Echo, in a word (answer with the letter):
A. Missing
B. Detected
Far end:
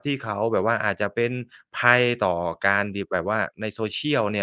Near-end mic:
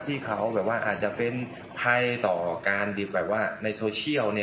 B